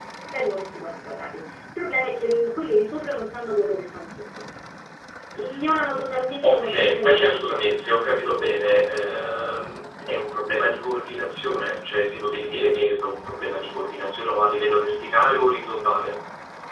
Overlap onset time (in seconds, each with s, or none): 6.4 s